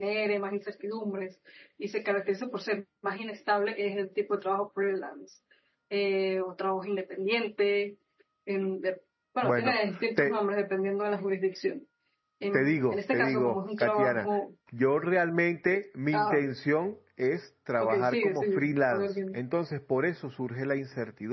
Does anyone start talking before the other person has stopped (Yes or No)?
Yes